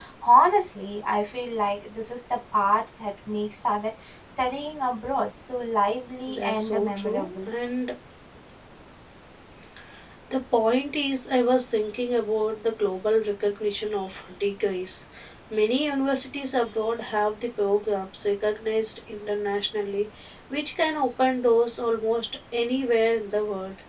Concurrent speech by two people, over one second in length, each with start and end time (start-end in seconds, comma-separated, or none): 6.3-7.5